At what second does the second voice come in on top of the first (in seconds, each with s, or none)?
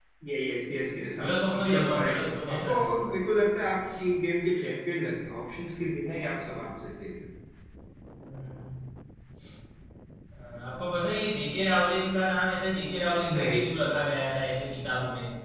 1.2 s